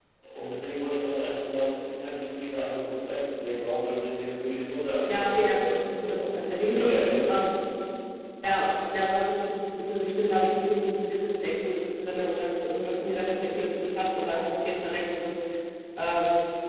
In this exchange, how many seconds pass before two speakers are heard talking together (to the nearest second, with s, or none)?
5 s